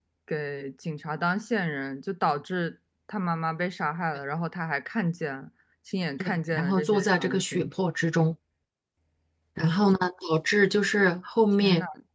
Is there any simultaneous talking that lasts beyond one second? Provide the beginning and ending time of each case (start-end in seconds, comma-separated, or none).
6.2-7.6